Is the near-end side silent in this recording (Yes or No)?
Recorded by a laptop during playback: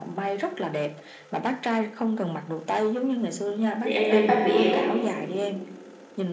No